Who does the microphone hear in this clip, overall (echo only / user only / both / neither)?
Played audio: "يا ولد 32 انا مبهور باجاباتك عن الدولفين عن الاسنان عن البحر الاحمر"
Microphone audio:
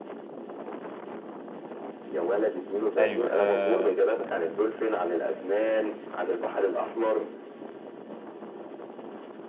both